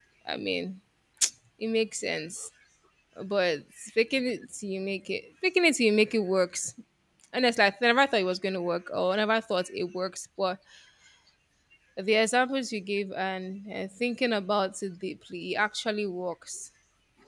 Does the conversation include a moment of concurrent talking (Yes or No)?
No